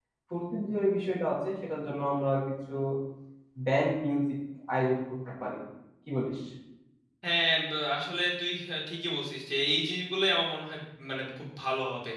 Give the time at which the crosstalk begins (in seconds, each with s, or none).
none